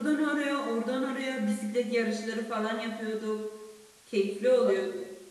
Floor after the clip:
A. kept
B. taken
B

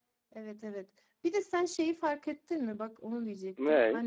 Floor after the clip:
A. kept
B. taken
A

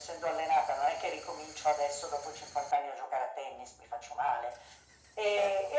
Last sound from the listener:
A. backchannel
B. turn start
A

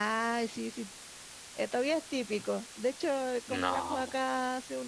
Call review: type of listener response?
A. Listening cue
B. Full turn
A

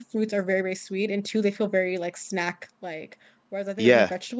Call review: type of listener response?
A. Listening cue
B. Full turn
A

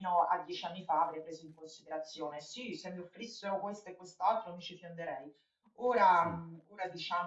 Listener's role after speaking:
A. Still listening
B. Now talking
A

